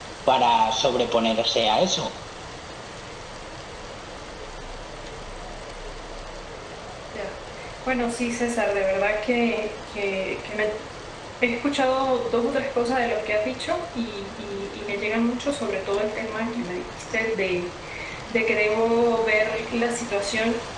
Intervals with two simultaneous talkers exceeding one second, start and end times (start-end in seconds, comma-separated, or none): none